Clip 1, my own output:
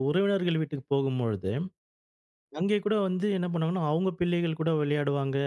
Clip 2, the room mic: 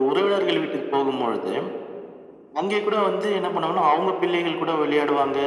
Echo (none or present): present